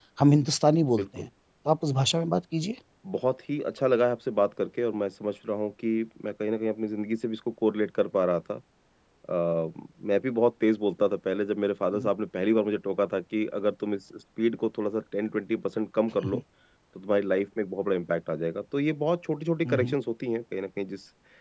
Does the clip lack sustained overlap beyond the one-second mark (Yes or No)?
Yes